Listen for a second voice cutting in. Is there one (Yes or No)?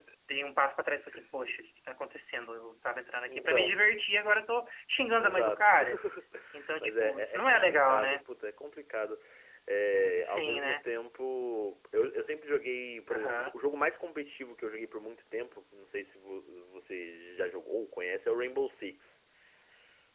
Yes